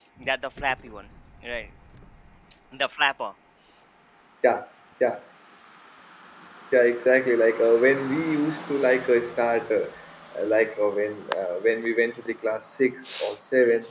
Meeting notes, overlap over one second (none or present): none